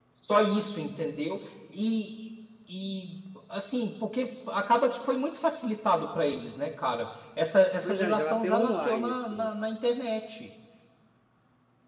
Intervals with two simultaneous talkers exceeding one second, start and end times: 7.8-9.5

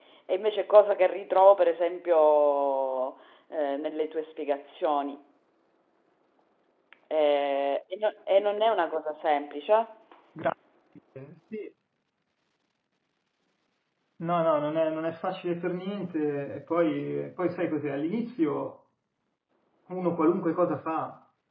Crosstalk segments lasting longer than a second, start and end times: none

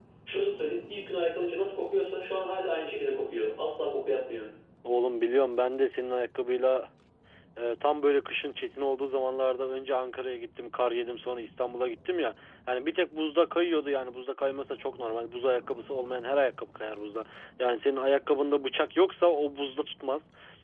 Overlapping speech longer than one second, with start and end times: none

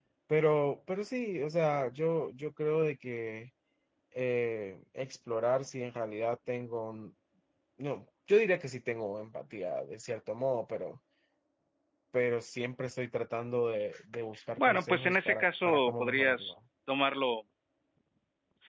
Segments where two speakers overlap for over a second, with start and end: 14.6-16.5

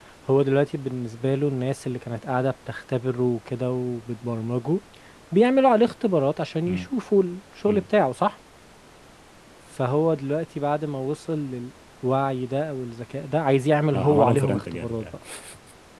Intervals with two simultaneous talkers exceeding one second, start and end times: 13.9-15.2

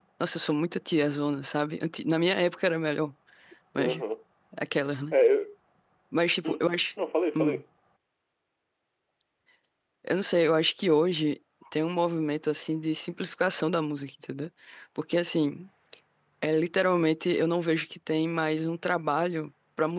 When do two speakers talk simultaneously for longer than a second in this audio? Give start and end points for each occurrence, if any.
none

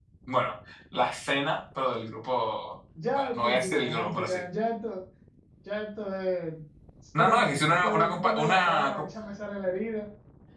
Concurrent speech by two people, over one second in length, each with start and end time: 3.1-4.4, 7.2-9.1

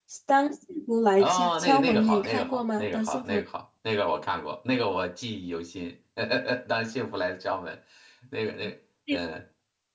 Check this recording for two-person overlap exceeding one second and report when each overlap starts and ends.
1.2-3.4

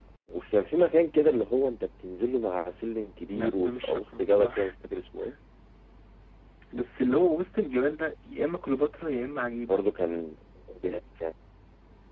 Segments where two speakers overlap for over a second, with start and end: 3.3-4.7

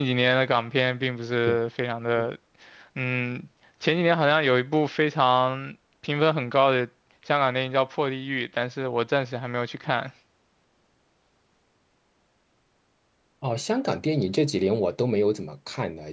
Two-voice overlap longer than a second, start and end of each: none

